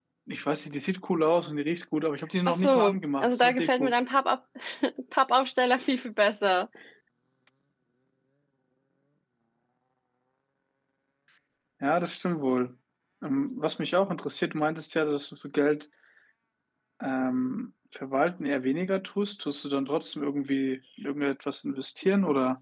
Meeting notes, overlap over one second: present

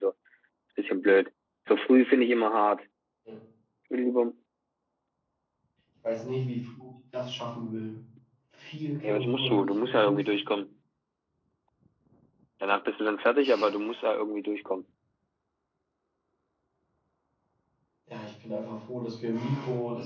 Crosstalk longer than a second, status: present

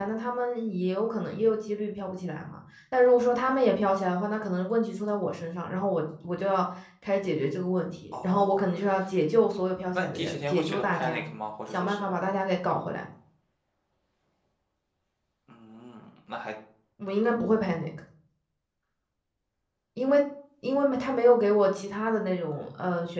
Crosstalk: present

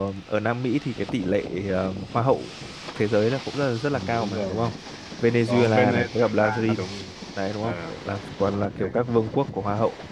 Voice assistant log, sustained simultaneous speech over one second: present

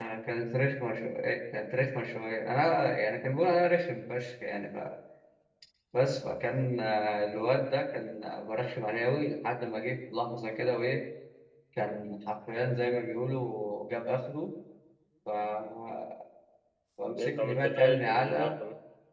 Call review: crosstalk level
present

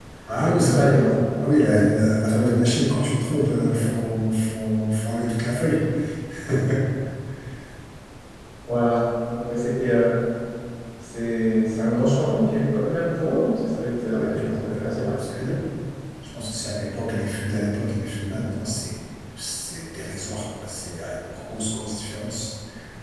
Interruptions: present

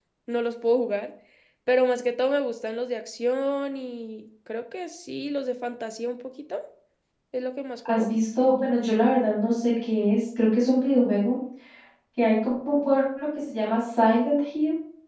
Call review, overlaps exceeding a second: none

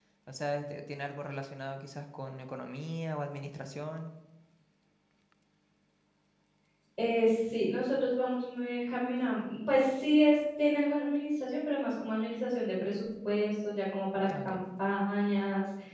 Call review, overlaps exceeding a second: none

